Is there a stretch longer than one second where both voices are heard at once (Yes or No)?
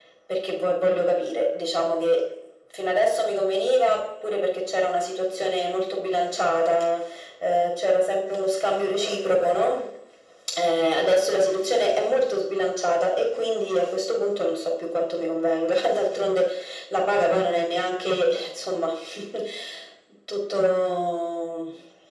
No